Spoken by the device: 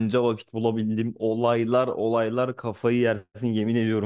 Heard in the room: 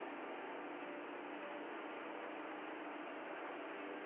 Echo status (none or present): none